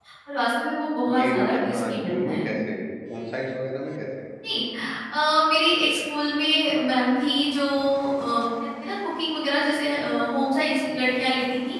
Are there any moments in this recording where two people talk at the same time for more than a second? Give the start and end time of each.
1.1-2.4

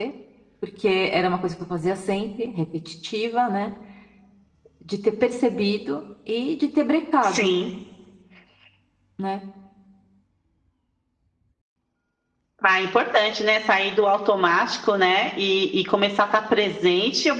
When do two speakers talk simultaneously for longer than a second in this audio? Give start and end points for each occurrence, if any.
none

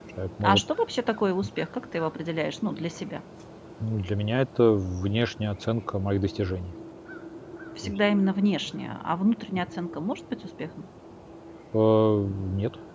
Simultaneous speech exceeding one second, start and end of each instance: none

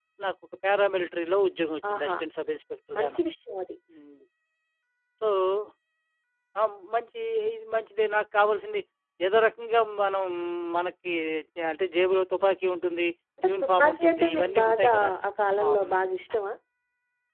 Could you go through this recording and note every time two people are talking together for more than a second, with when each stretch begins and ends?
13.5-14.9

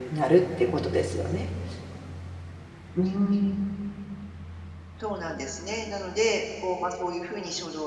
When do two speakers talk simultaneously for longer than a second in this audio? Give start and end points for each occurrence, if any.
none

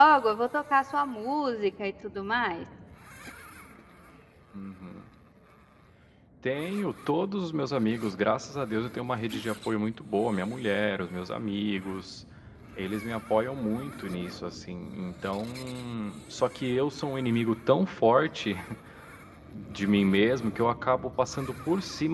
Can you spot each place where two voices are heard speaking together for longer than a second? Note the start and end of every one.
none

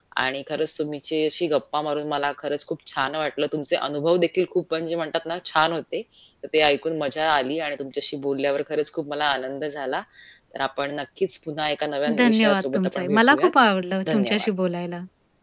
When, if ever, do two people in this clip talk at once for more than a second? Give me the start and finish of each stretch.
12.2-13.5

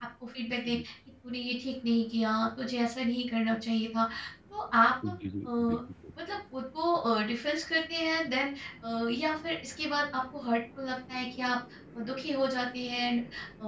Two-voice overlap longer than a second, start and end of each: none

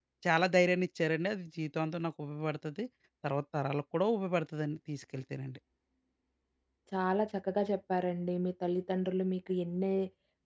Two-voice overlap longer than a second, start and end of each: none

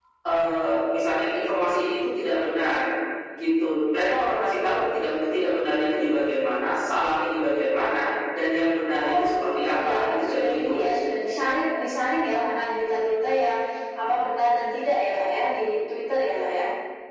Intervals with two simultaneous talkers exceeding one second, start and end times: 9.0-10.8

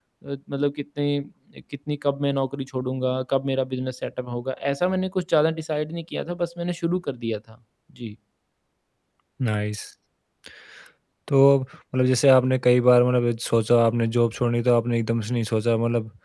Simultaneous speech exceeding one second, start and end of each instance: none

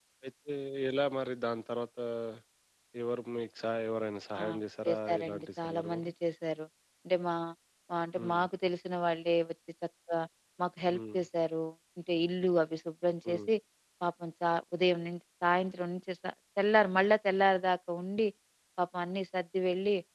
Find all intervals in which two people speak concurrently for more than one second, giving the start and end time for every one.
4.8-6.1

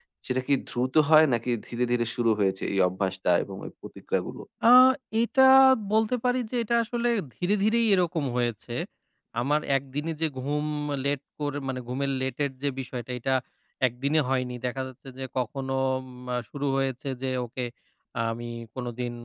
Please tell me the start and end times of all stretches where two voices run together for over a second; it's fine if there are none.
none

